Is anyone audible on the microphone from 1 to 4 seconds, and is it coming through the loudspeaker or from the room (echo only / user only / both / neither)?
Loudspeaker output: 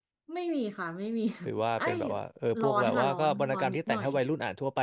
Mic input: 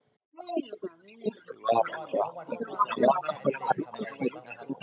both